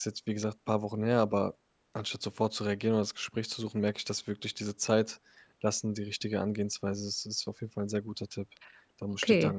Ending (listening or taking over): taking over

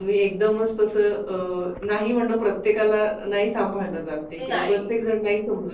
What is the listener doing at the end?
listening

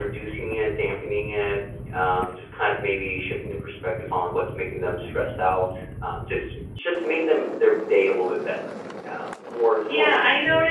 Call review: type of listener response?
taking over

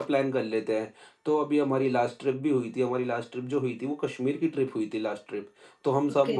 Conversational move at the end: listening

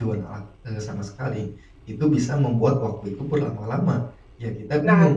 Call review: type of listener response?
taking over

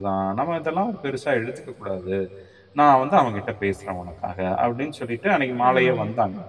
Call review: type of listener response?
listening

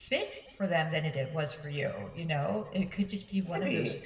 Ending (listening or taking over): listening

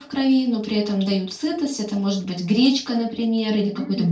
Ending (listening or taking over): listening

